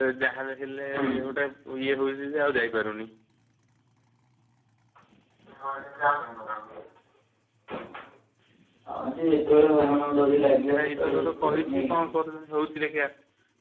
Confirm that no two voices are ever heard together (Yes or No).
No